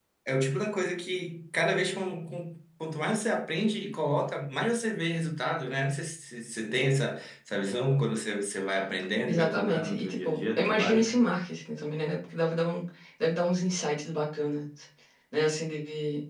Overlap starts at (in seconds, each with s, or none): 9.3 s